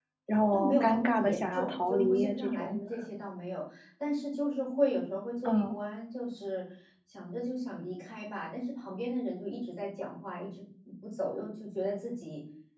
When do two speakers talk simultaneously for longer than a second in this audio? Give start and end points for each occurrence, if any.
0.5-2.8

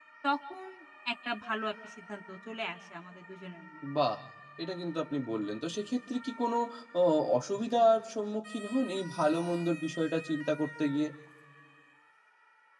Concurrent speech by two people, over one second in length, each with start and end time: none

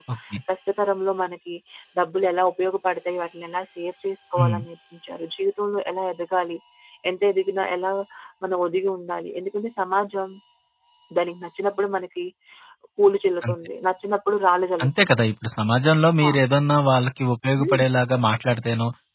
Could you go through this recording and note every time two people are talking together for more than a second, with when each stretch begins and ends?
none

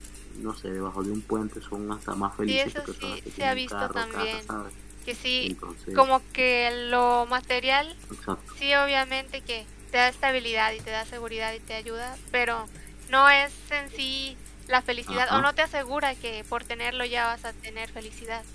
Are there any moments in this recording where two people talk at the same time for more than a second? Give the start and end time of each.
2.5-4.4

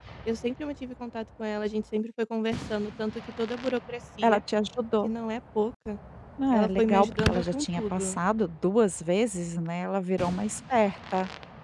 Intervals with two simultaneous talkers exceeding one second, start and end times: 6.5-8.2

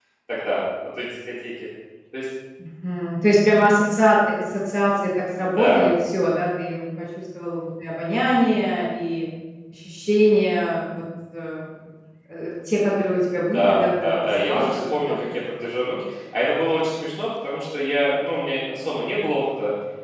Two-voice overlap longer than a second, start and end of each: 13.5-15.2

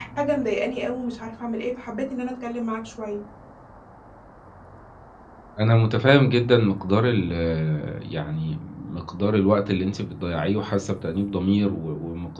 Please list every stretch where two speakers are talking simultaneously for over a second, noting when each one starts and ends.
none

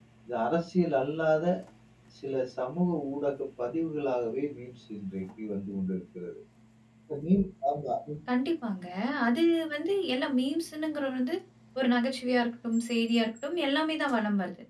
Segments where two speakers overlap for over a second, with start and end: none

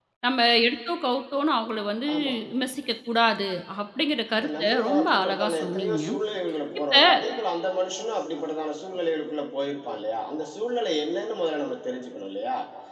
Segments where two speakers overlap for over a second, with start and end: 4.3-6.0

